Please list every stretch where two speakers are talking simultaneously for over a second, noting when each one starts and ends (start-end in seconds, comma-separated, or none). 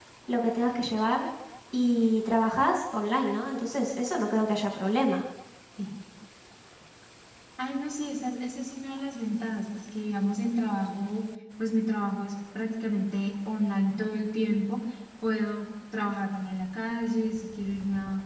none